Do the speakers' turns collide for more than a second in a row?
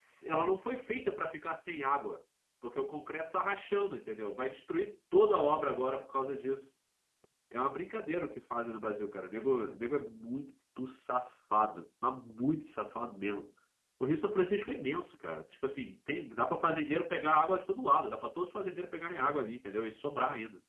No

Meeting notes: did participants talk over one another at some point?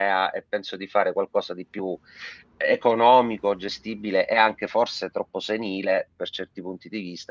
No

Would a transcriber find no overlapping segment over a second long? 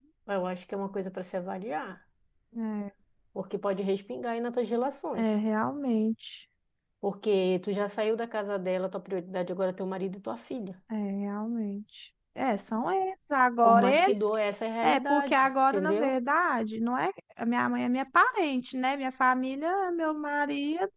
No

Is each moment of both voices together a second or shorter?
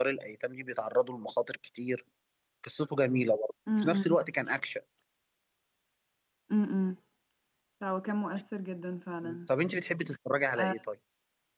Yes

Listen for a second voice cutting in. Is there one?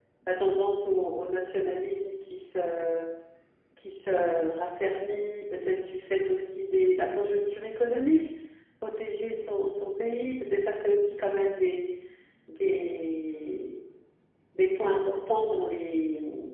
No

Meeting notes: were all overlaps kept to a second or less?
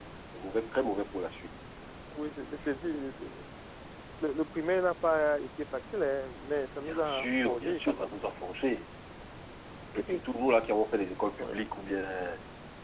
No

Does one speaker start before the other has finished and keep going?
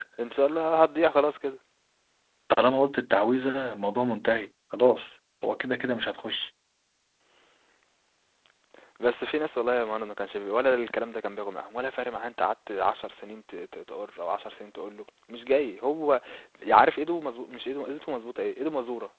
No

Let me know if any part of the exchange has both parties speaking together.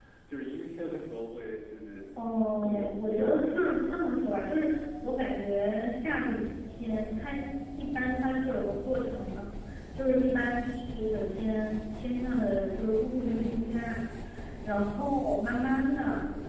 Yes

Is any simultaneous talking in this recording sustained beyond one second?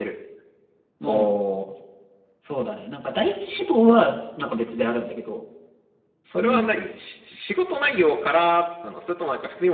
No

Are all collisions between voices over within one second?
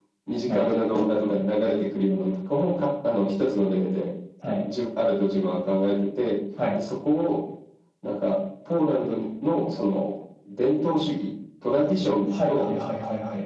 Yes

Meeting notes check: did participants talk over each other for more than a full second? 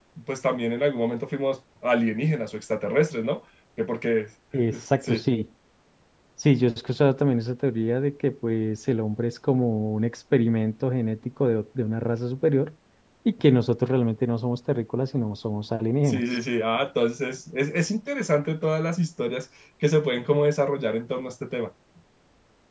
No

